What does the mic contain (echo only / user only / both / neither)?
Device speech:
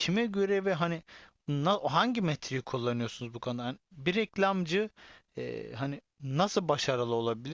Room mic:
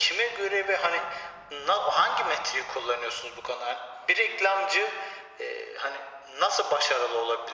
echo only